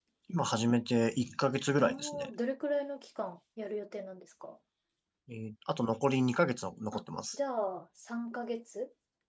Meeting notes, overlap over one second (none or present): none